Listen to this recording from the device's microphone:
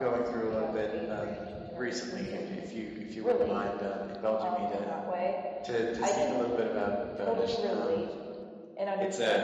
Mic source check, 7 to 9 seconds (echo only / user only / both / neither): echo only